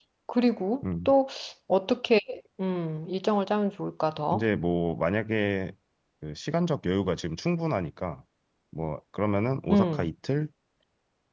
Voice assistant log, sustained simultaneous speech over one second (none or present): none